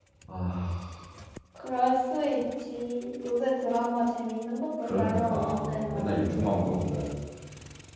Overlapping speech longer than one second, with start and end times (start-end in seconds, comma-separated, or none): 4.8-6.2